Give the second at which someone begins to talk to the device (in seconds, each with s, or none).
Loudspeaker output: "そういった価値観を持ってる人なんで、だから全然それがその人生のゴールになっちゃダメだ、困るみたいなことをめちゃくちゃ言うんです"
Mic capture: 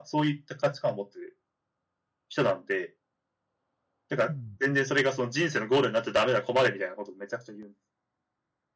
4.3 s